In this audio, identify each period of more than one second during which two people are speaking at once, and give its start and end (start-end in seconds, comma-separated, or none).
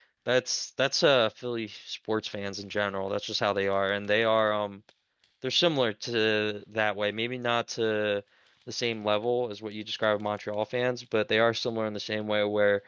none